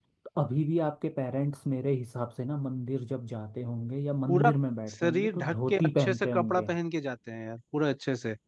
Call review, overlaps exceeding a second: present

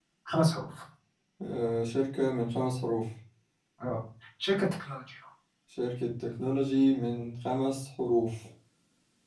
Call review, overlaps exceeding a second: none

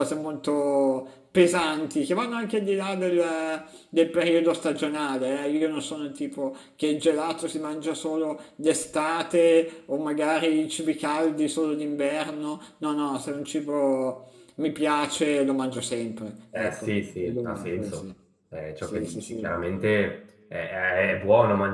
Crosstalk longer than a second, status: present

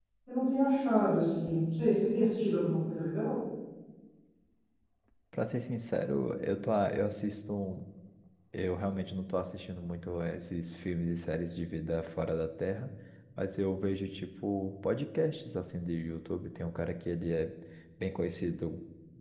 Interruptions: none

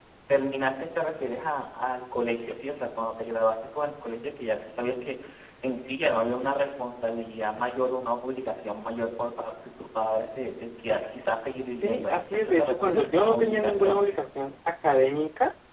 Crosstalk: present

